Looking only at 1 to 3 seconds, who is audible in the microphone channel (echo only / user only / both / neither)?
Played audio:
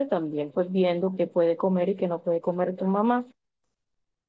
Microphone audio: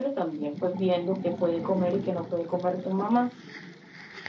echo only